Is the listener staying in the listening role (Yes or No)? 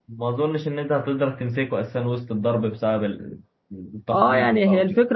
No